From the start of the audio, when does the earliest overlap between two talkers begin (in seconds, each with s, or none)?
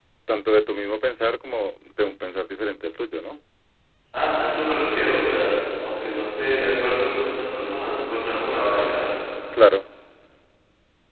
none